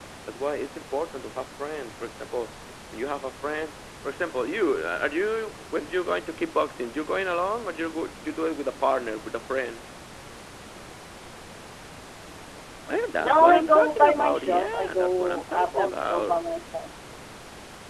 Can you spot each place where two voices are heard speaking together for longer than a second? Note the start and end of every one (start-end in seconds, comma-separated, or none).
13.2-16.4